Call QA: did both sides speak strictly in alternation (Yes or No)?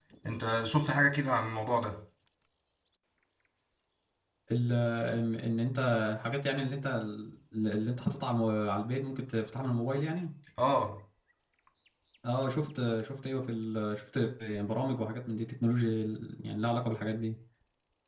Yes